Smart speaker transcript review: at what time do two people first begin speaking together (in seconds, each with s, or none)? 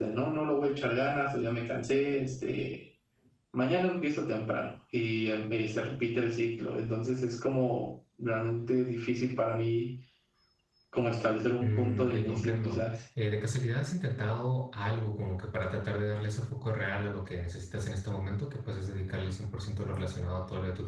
11.6 s